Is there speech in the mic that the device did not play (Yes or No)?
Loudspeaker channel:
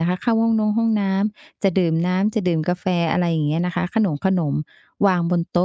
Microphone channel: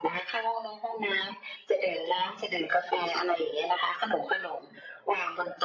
No